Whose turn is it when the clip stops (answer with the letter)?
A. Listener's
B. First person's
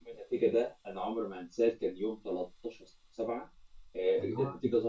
B